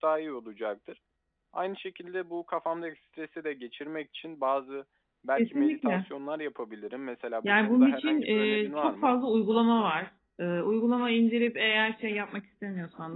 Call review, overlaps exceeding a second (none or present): present